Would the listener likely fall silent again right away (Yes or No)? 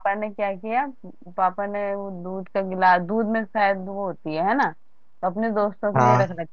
Yes